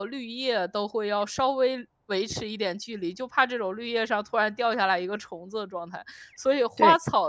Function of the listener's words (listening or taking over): listening